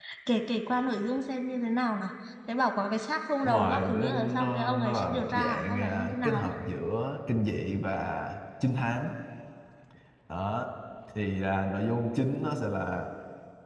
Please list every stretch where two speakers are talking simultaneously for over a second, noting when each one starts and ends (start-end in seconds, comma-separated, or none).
3.4-6.5